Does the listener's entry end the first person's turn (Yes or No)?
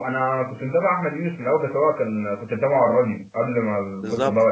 Yes